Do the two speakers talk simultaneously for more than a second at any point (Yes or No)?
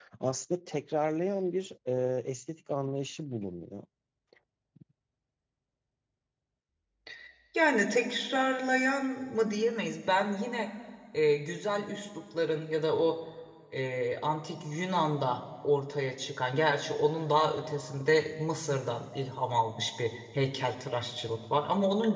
No